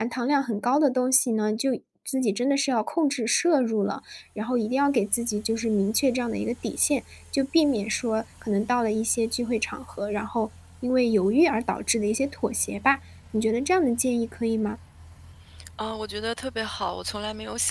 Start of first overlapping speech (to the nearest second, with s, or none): none